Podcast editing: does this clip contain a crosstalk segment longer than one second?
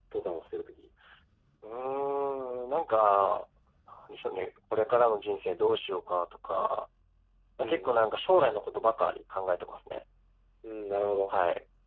No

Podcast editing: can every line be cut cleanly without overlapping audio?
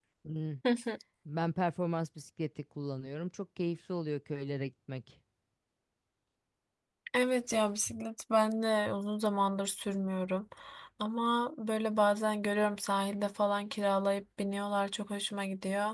Yes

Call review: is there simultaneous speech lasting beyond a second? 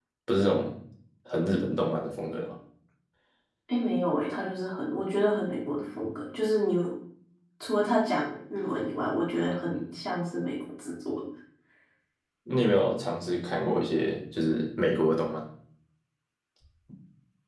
No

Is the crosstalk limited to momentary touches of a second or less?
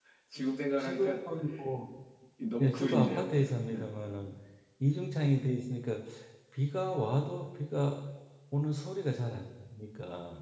No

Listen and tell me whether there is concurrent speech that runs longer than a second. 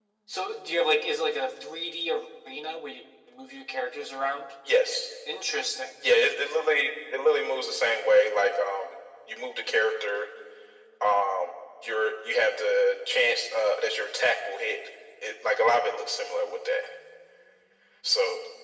No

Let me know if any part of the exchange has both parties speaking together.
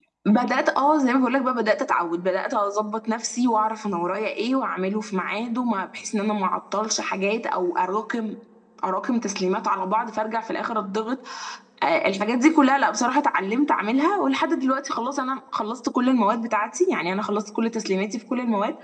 No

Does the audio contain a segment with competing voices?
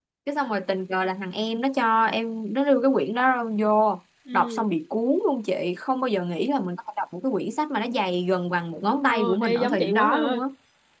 Yes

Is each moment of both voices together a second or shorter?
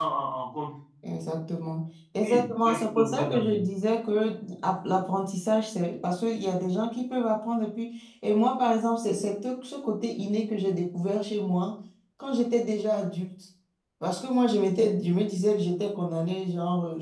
No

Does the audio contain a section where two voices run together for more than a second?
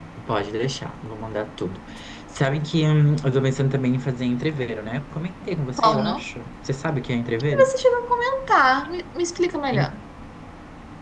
No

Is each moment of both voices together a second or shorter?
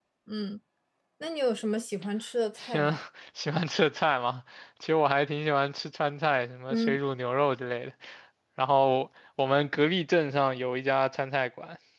Yes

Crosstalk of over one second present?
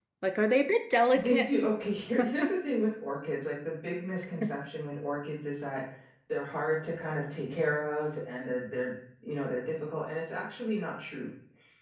No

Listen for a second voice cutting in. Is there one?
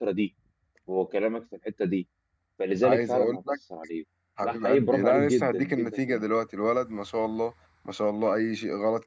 Yes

